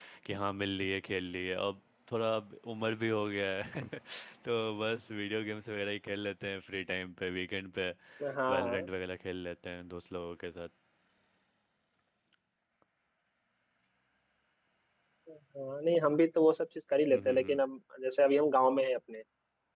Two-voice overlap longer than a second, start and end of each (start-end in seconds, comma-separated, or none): none